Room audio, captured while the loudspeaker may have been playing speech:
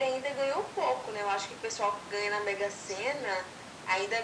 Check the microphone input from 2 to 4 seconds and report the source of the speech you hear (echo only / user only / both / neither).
echo only